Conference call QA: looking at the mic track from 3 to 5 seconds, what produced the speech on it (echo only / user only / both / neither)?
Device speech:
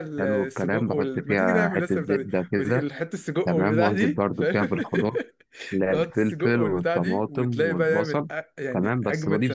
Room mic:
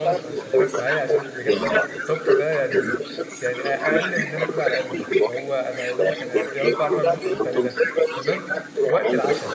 both